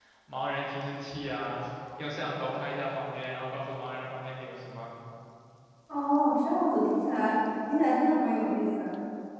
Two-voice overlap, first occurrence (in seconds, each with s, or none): none